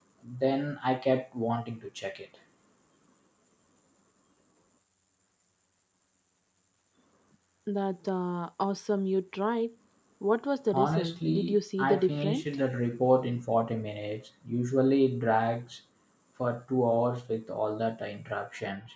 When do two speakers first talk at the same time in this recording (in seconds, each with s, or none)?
10.7 s